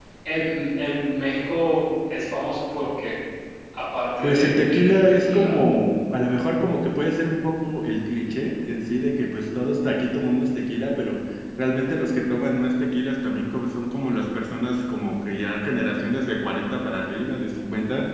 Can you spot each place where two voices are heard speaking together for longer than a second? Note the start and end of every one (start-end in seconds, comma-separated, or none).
4.2-5.6